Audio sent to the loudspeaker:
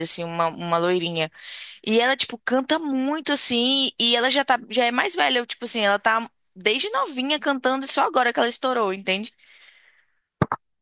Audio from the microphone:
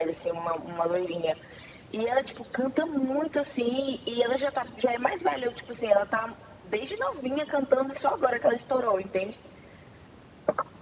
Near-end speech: none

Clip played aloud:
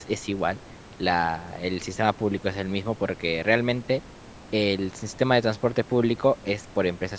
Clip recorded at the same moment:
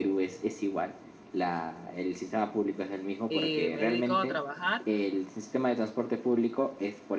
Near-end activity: present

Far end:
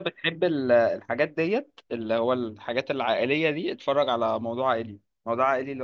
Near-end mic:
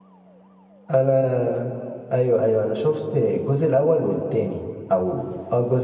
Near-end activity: present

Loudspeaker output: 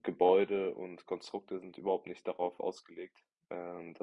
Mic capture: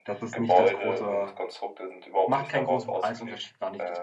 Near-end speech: present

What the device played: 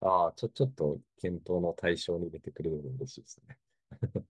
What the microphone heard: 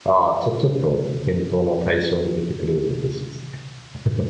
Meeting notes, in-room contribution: none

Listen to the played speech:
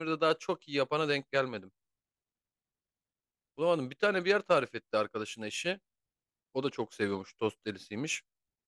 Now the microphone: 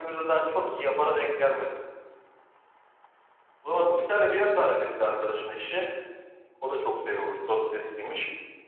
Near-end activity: none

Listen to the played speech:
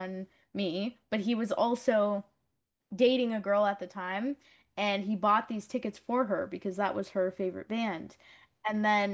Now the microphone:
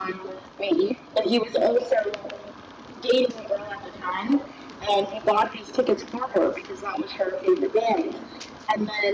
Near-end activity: none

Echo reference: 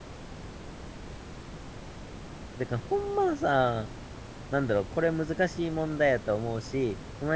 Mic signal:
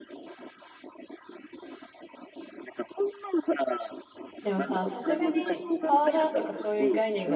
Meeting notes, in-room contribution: present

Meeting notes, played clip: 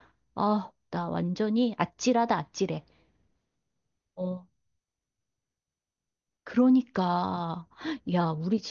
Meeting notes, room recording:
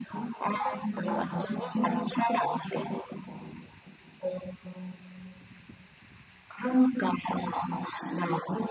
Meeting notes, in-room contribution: present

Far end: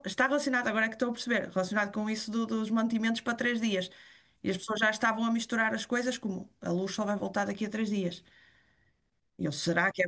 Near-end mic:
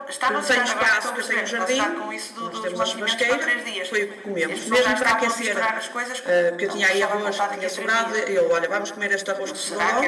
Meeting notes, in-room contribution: present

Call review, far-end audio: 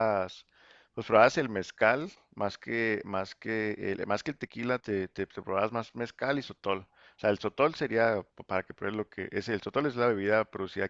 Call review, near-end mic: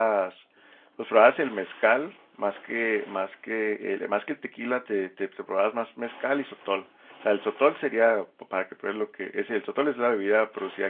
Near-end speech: none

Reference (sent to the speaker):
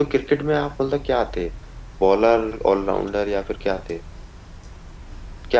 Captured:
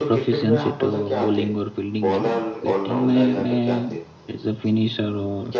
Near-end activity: present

